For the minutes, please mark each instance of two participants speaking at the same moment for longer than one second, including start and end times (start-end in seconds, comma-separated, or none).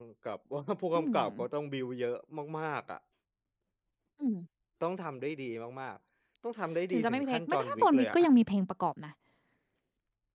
6.9-8.2